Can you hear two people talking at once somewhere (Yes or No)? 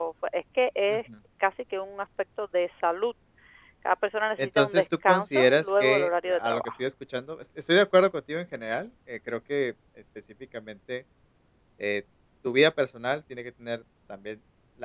Yes